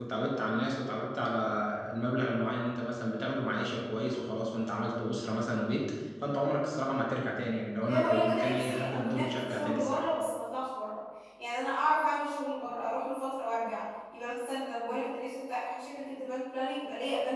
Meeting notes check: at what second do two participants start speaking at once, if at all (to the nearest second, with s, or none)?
8 s